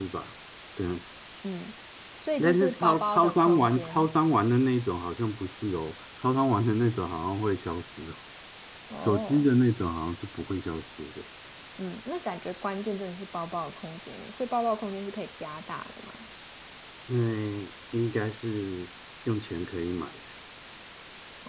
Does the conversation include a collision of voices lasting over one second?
Yes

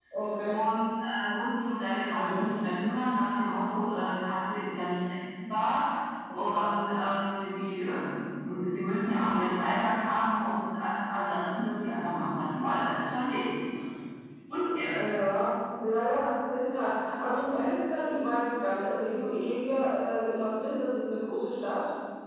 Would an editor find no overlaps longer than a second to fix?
Yes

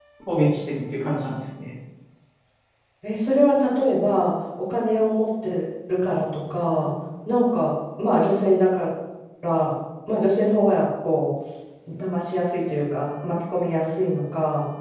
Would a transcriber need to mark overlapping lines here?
No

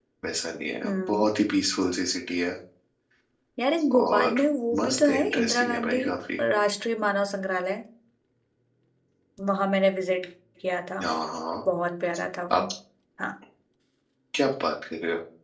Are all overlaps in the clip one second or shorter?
No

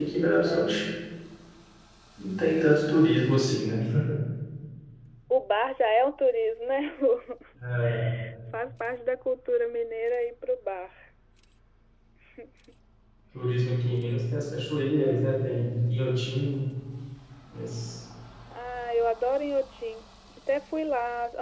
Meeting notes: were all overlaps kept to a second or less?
Yes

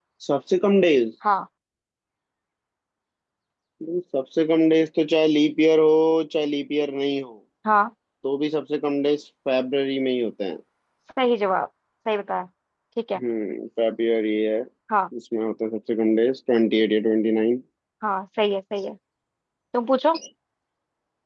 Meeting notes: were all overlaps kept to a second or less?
Yes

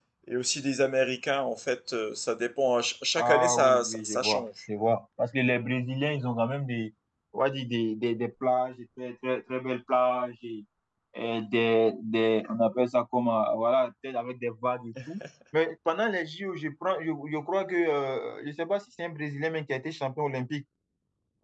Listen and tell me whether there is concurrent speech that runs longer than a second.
Yes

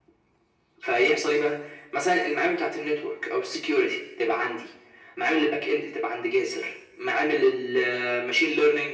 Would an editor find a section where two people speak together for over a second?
No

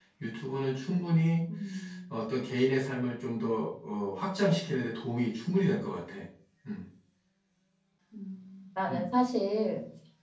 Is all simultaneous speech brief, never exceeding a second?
Yes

